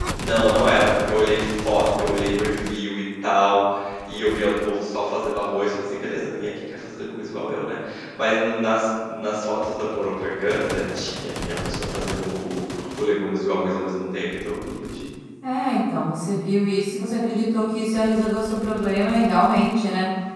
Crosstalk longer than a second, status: none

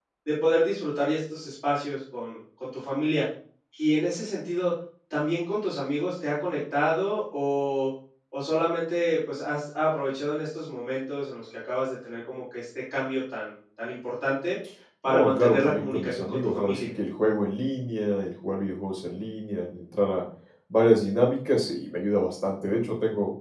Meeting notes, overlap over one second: present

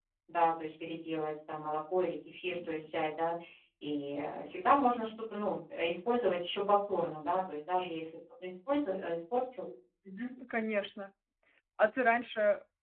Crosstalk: none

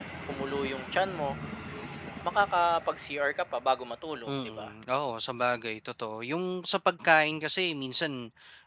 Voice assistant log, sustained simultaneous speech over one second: none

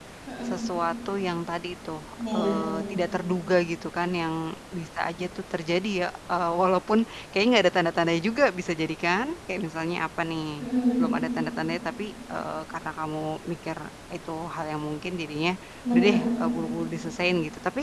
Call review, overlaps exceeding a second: none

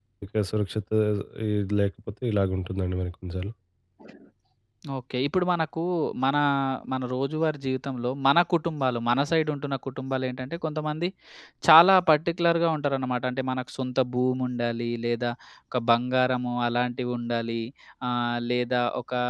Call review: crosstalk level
none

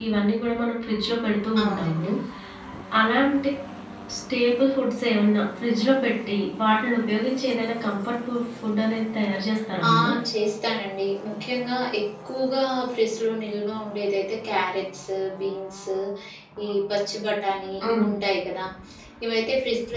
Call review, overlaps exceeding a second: none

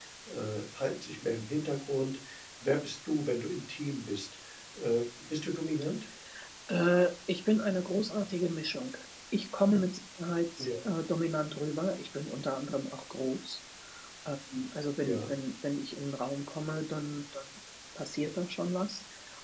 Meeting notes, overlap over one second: none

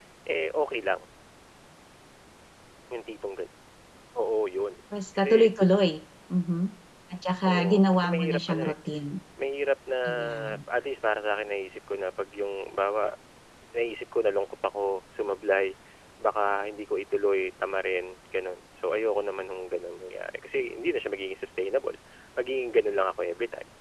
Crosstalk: present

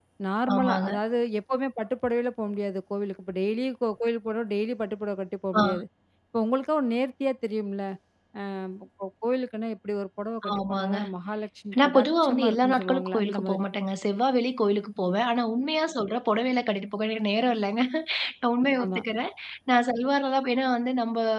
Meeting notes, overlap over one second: present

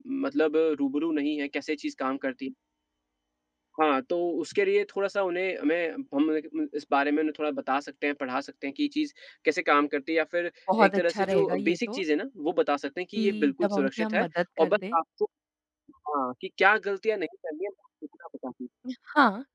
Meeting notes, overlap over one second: present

